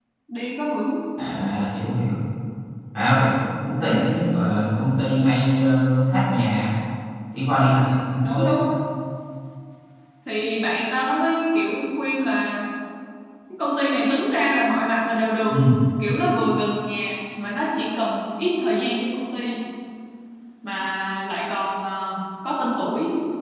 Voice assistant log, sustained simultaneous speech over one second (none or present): none